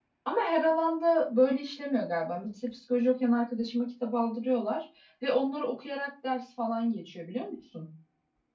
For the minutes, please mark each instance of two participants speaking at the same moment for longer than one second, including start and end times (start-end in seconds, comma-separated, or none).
none